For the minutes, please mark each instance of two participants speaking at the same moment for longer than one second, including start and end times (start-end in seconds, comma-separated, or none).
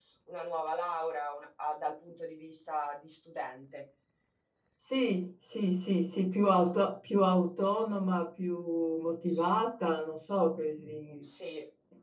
none